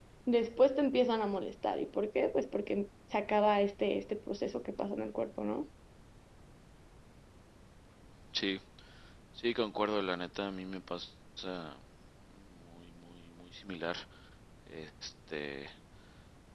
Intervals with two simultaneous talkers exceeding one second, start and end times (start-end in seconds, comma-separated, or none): none